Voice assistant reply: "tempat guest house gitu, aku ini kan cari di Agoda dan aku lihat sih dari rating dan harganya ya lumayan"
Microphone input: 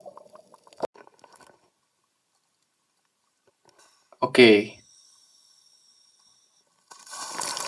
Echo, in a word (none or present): none